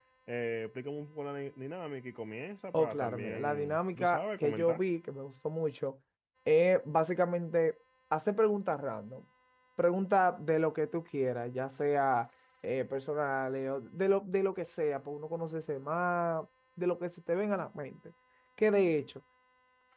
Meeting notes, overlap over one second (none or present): present